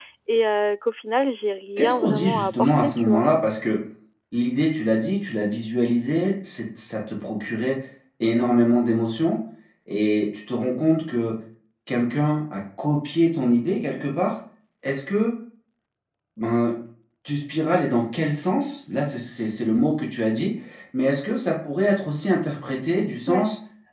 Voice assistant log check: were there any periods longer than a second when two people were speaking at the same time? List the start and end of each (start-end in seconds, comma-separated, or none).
1.8-3.2